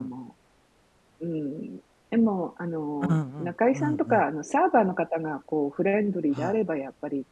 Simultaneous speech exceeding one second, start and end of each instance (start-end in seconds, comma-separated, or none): 3.0-4.2